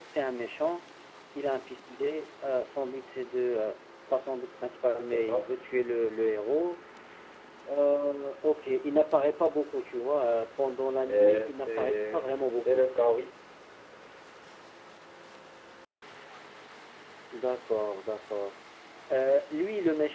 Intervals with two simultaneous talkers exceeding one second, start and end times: 11.1-12.8

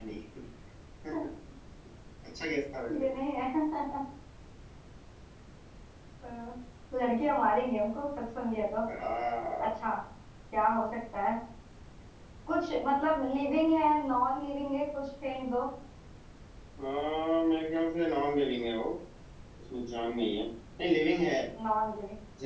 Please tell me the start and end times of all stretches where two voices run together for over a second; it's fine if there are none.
none

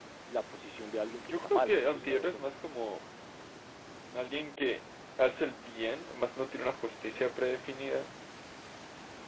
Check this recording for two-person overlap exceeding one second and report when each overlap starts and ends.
1.3-2.5

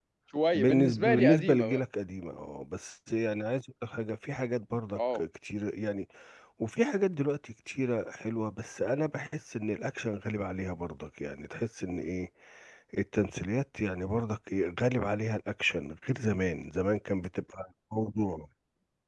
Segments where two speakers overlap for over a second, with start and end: 0.5-1.8

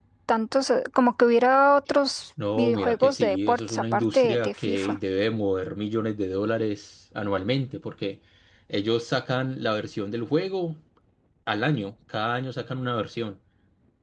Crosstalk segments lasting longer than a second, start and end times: 2.6-5.0

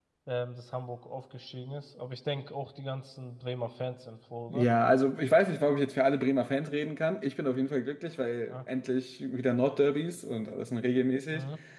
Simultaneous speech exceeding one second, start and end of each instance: none

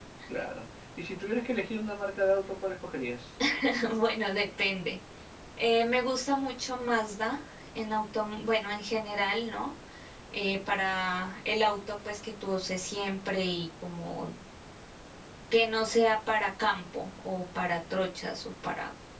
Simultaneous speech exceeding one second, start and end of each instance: none

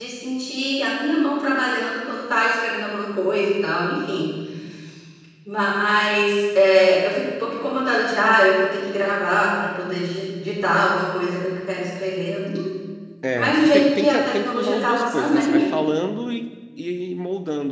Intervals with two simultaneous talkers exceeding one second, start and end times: 13.4-15.7

